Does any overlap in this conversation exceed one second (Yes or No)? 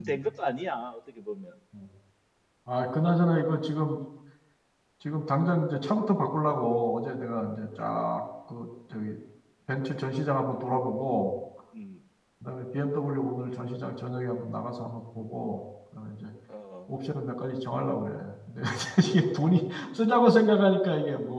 No